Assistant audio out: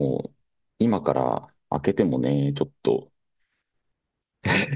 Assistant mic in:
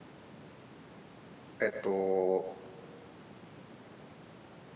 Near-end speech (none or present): present